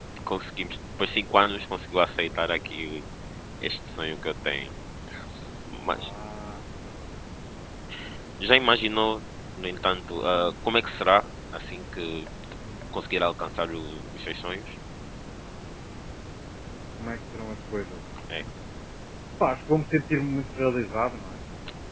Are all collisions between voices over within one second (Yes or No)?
Yes